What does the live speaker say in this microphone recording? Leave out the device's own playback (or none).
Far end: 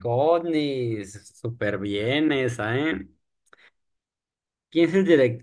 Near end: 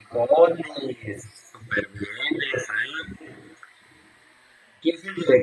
none